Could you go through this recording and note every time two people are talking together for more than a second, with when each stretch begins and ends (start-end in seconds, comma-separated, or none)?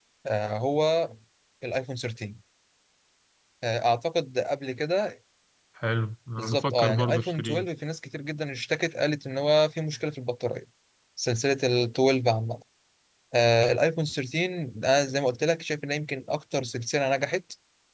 6.4-7.7